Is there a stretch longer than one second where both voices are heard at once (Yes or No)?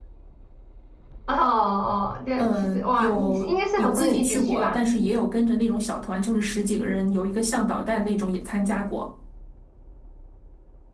Yes